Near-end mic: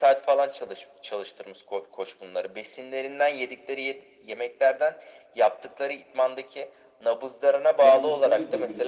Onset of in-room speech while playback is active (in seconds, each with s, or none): 7.8 s